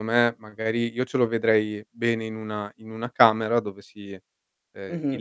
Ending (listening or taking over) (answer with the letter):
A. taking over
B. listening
B